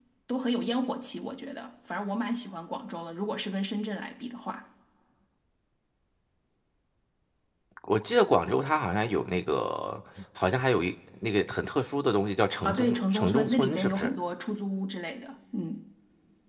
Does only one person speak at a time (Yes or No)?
No